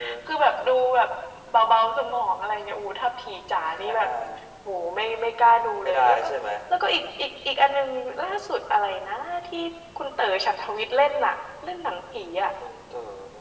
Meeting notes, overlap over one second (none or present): none